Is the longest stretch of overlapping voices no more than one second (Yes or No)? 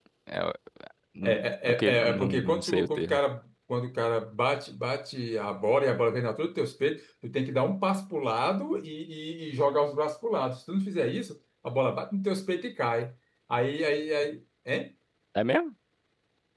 No